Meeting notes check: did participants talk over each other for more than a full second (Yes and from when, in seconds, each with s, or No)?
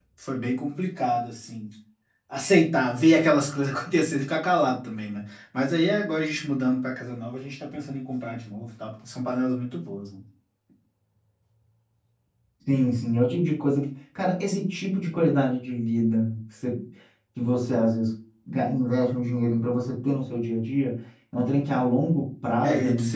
No